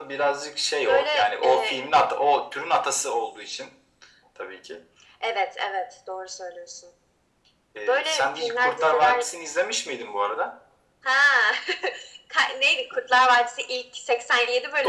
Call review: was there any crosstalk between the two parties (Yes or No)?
Yes